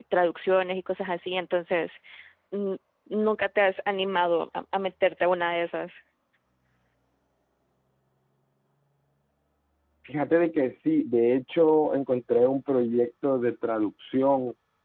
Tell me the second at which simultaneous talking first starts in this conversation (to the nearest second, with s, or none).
none